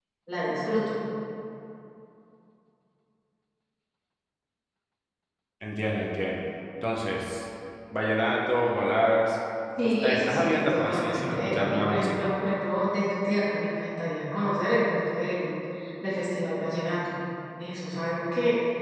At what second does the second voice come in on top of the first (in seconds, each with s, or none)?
9.8 s